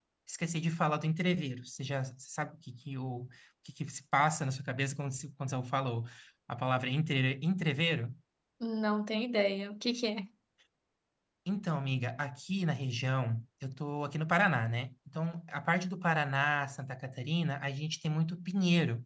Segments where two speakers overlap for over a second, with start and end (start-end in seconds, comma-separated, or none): none